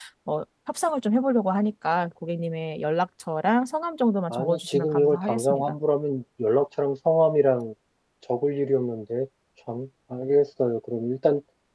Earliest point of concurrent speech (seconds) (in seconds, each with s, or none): 4.3 s